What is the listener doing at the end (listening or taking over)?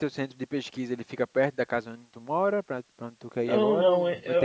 taking over